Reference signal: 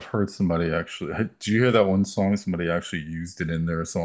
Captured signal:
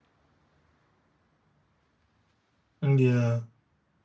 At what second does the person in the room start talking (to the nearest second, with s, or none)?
3 s